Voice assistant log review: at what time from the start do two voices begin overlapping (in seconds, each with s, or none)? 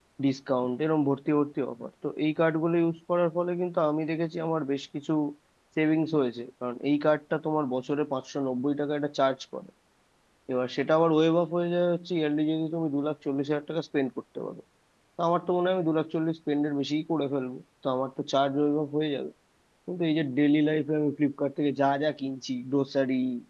none